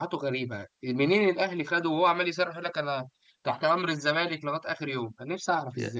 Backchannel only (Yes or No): No